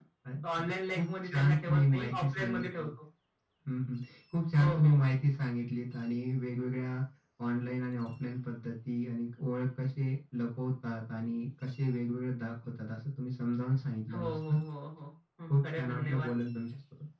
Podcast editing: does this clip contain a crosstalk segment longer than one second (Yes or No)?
Yes